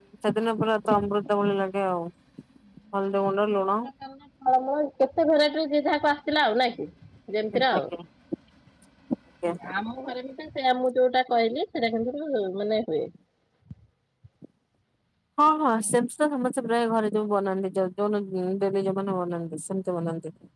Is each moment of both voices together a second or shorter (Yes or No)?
Yes